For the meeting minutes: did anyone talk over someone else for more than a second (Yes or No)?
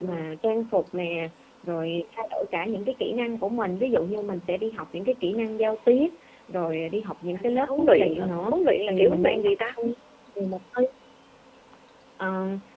Yes